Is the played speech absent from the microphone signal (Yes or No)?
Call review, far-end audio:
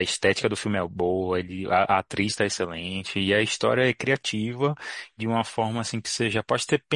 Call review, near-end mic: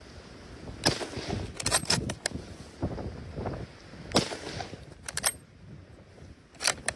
Yes